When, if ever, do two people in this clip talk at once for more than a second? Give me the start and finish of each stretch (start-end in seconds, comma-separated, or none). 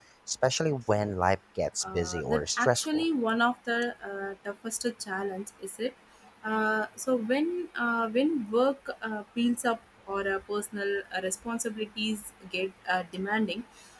1.8-3.1